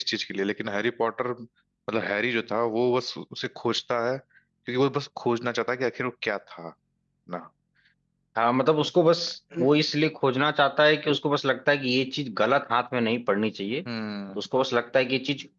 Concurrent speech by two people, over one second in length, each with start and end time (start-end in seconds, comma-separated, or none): none